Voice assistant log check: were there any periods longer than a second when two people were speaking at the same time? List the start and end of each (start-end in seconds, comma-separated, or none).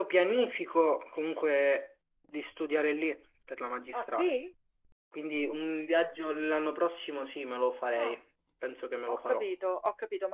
none